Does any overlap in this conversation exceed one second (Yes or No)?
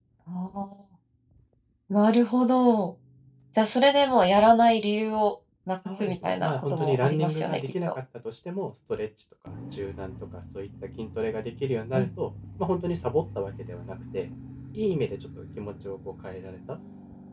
Yes